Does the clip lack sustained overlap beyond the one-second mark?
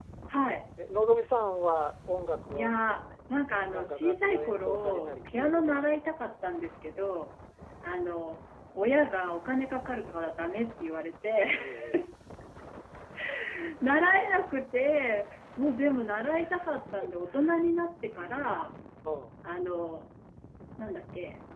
No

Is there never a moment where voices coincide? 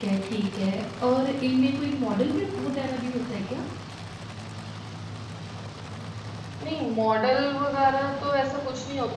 Yes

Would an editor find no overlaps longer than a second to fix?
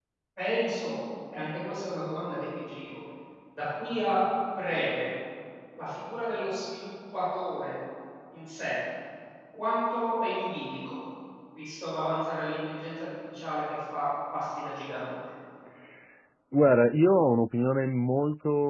Yes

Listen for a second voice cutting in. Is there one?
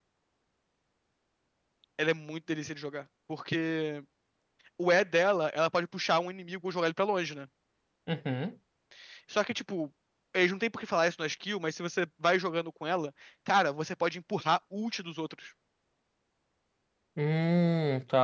No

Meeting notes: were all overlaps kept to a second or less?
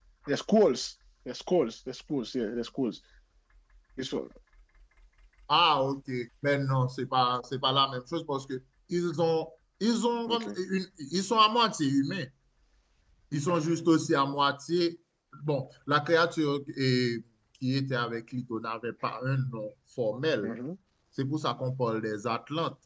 Yes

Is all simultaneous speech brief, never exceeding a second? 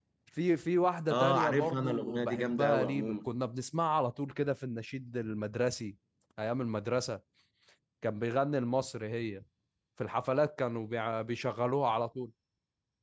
No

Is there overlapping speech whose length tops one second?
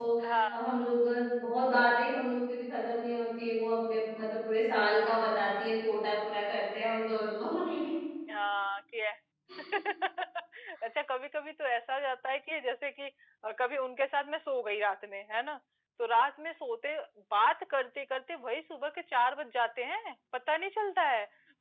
No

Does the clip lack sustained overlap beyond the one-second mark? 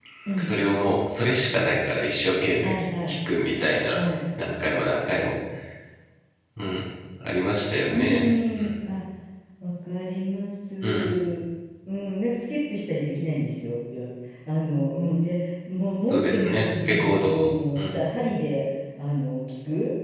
No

